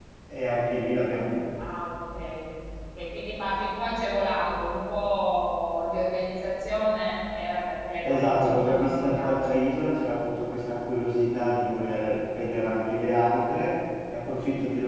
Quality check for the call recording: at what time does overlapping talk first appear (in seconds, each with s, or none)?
8.0 s